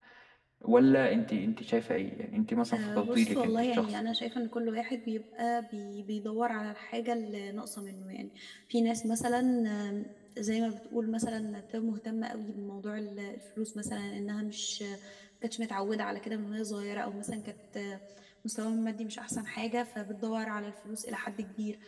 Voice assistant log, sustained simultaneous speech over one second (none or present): present